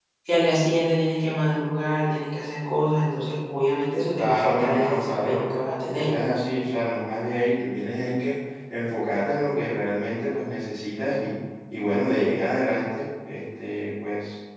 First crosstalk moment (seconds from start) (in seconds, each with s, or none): 4.2 s